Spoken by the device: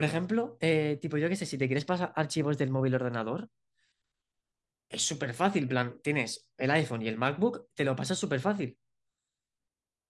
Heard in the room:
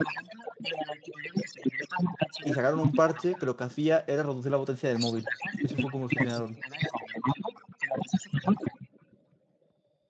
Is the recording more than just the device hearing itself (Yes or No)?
Yes